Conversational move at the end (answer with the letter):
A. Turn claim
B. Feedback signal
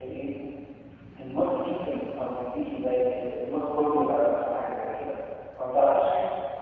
B